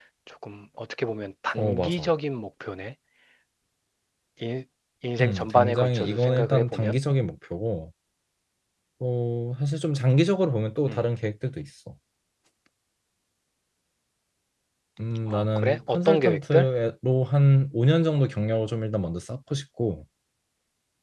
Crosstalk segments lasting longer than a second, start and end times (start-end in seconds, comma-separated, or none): 5.2-7.0, 15.3-16.7